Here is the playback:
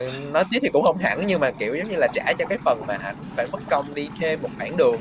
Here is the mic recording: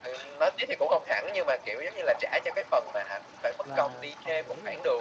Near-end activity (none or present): present